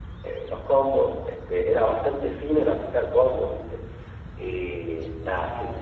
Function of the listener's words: listening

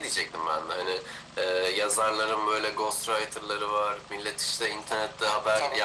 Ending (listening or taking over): listening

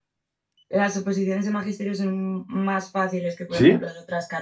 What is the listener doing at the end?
listening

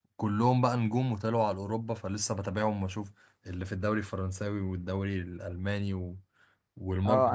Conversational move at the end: taking over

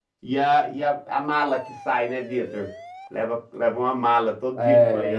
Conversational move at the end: taking over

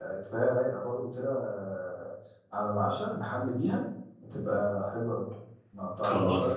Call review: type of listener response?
listening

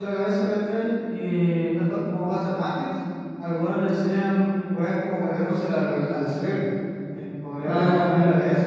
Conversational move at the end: listening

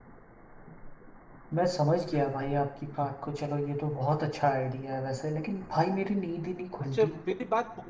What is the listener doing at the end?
taking over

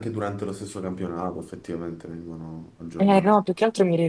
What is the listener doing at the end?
taking over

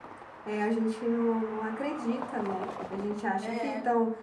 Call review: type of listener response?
listening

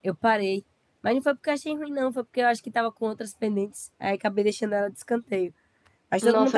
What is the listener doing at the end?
taking over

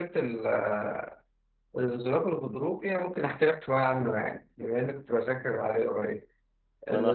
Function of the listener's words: taking over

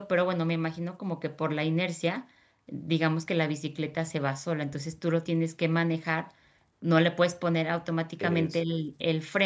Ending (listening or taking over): listening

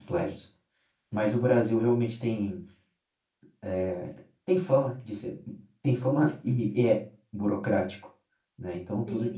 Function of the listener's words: taking over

